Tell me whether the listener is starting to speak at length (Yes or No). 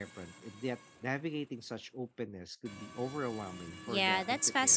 Yes